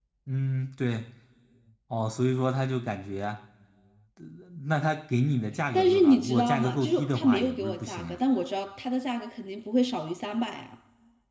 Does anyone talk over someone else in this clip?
Yes, from 5.7 s

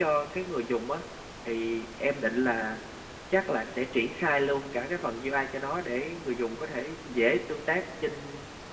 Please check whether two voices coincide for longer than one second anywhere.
No

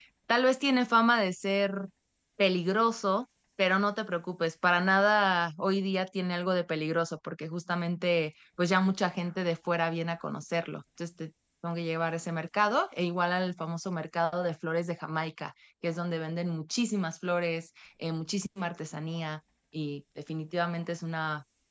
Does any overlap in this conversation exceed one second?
No

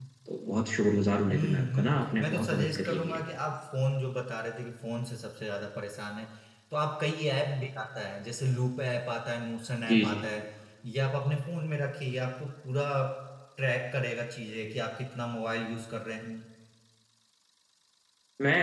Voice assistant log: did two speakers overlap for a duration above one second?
Yes, from 1.3 s

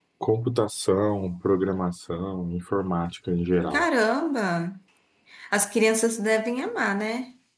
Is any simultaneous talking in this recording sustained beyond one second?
No

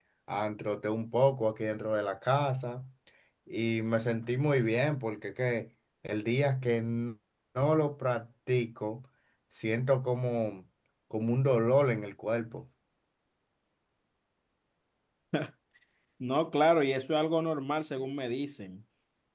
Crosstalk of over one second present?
No

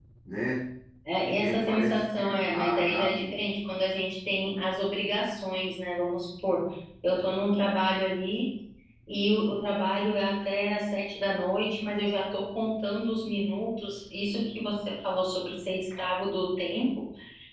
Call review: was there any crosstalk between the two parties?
Yes, from 1.3 s

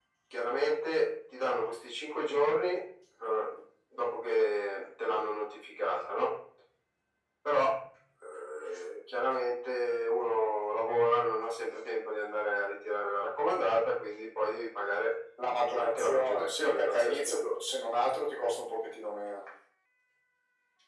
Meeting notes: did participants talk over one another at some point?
Yes, from 15.7 s

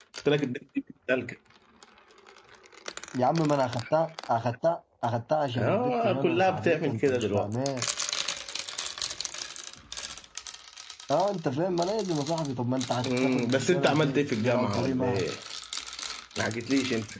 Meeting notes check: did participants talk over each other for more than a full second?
Yes, from 5.6 s

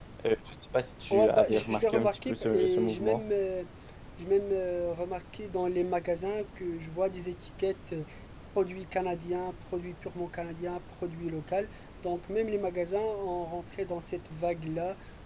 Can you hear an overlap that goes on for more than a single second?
Yes, from 1.1 s

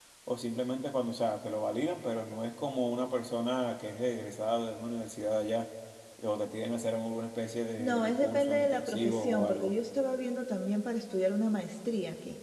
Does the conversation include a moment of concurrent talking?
Yes, from 7.8 s

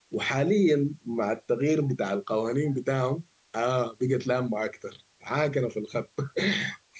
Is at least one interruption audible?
No

